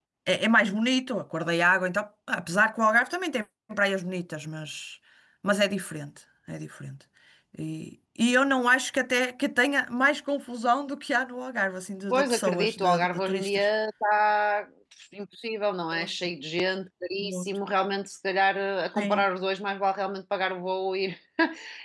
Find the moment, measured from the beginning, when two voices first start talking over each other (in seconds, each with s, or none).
12.1 s